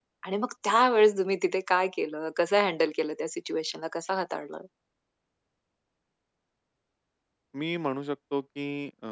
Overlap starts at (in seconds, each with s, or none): none